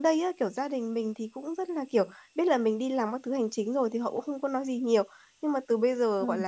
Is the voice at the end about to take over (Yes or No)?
No